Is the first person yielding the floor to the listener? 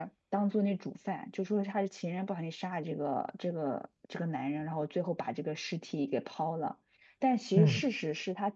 No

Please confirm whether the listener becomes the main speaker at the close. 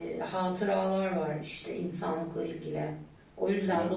No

